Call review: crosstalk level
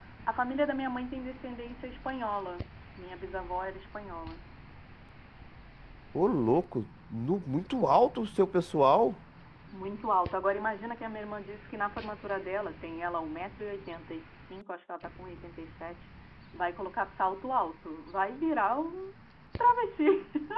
none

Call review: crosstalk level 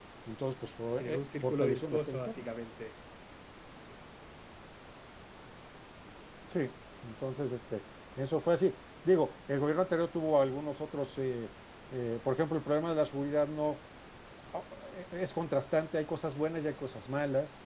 present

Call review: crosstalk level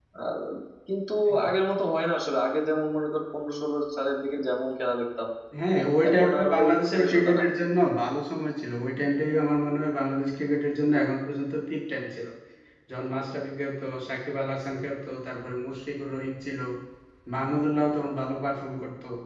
present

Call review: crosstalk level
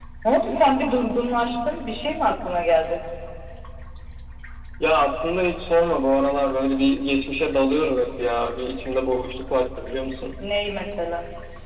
none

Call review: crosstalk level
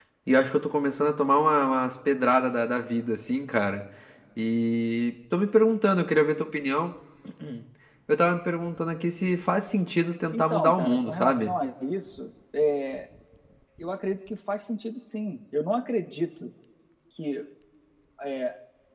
present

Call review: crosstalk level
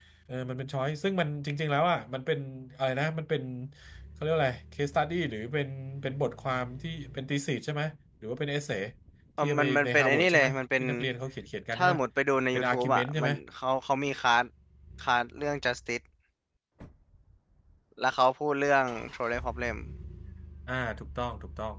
present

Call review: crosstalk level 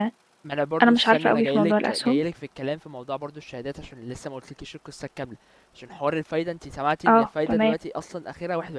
present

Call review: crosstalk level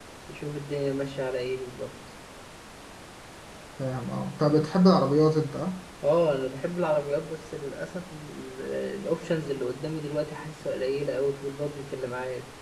none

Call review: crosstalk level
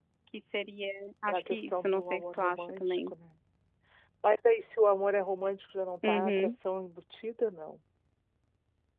present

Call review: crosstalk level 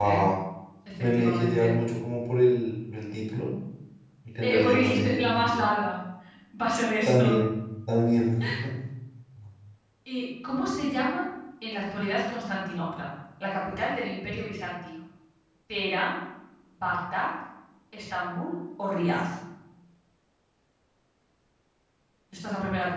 present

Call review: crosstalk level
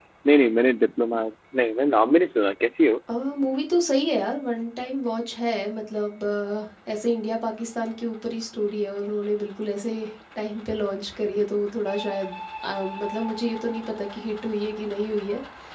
none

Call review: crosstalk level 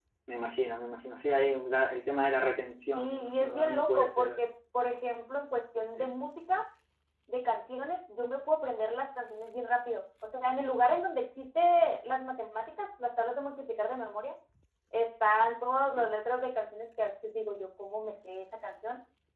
present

